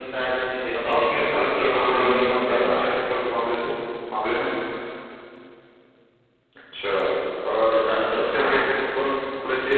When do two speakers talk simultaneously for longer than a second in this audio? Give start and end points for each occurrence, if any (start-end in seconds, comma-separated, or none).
0.7-2.6